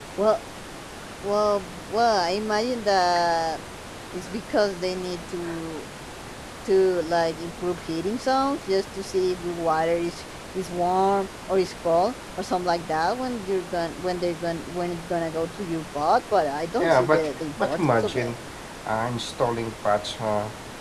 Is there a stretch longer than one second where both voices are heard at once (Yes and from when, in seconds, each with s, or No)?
Yes, from 16.8 s